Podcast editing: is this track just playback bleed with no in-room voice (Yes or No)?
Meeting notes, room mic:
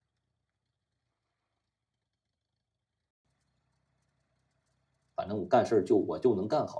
No